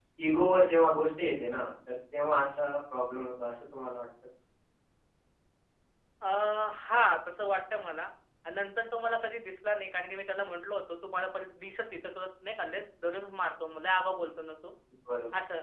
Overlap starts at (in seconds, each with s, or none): none